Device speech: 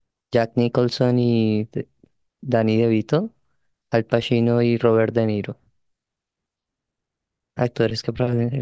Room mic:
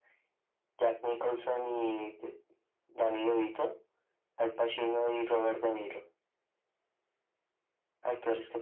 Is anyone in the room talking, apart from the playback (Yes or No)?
No